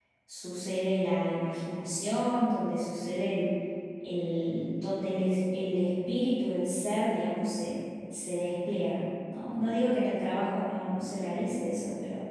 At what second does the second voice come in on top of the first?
none

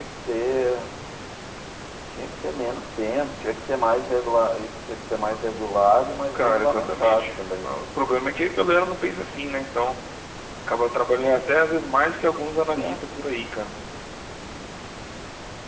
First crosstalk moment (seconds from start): 6.3 s

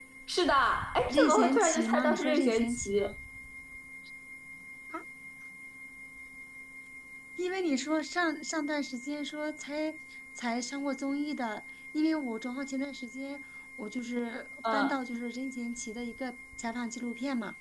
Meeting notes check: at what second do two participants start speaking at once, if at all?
1.1 s

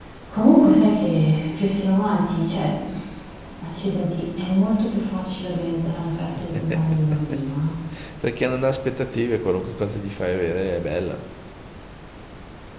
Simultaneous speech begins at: none

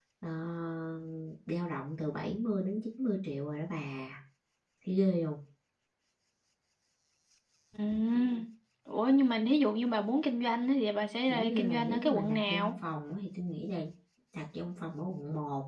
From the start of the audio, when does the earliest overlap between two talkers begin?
11.3 s

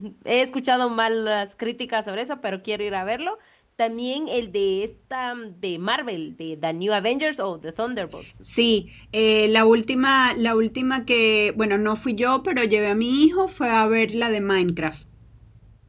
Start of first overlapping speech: none

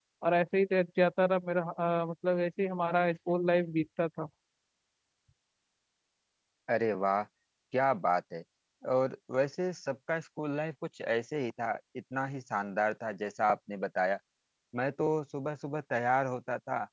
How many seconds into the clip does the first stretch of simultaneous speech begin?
none

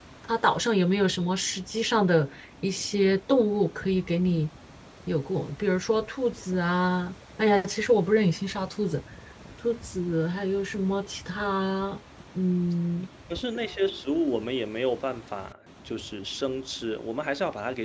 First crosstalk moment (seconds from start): none

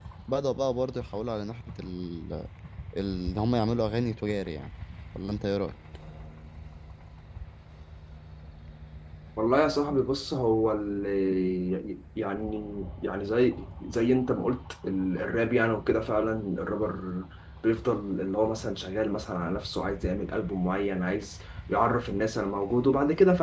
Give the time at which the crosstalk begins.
none

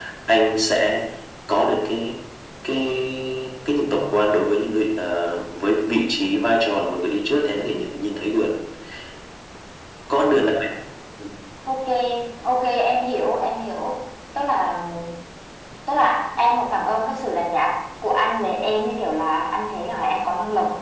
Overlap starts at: none

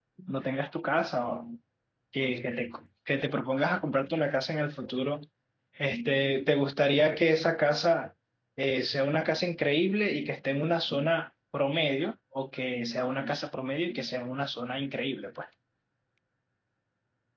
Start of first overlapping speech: none

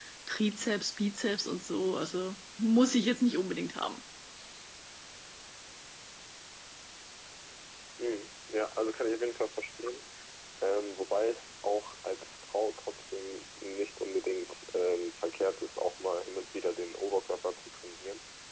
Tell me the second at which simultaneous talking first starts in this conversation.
none

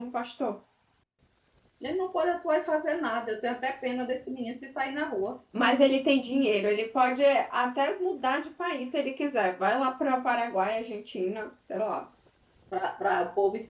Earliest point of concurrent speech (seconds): none

